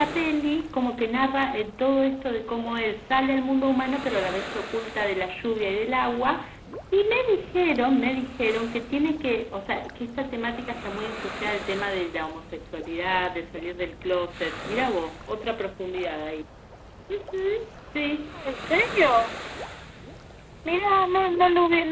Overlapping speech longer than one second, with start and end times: none

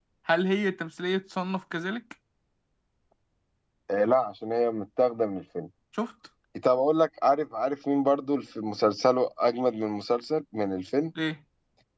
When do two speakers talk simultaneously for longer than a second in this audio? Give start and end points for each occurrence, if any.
none

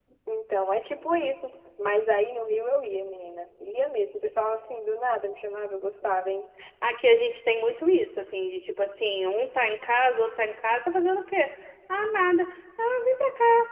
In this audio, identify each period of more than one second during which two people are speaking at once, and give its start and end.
none

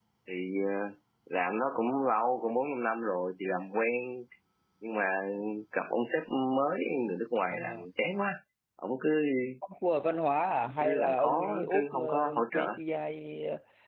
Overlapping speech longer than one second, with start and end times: 10.8-12.7

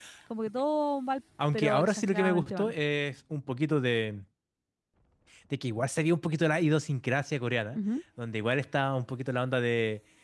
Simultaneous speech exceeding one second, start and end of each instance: 1.5-2.7

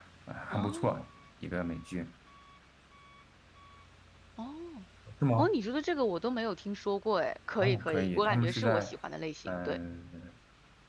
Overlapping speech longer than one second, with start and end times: 7.6-8.9

